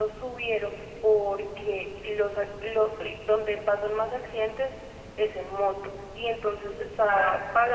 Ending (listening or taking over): listening